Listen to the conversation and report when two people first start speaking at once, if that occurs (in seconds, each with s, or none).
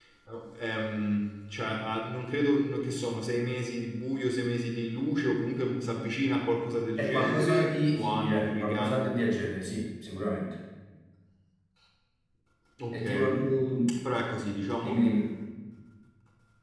7.0 s